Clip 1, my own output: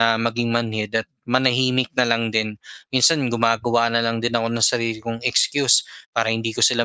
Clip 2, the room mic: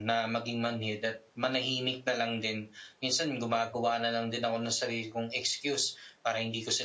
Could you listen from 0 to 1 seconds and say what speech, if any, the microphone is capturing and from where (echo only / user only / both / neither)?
echo only